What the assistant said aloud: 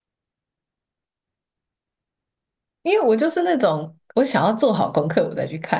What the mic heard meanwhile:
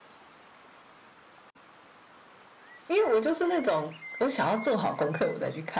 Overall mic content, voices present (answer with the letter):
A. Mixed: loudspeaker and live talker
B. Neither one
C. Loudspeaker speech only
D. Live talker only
C